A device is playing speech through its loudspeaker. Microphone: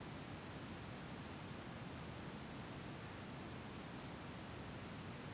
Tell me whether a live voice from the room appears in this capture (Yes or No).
No